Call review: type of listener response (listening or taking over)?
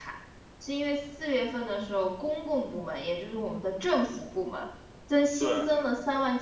listening